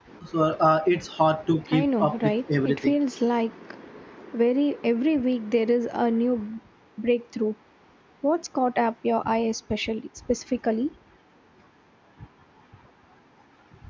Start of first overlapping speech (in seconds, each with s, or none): 1.7 s